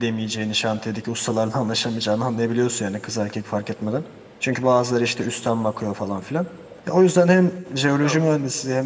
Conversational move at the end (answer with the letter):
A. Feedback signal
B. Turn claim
A